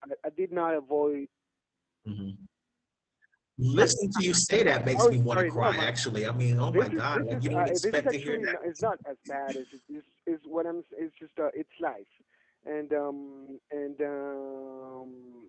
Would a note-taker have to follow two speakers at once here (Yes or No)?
Yes